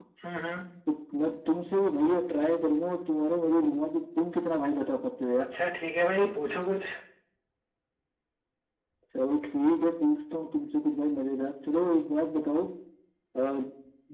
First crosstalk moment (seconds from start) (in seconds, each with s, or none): none